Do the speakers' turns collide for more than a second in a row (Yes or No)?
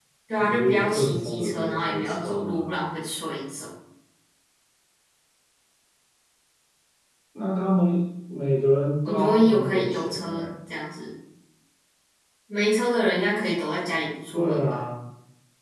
Yes